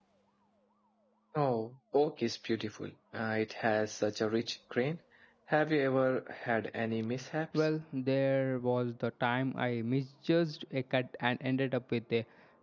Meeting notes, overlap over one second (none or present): none